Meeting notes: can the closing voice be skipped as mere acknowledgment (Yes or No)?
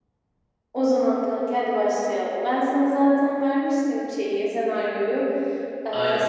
Yes